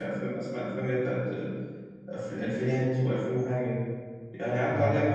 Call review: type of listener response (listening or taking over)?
listening